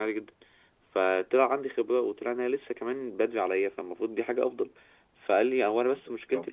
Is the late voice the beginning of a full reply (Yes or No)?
No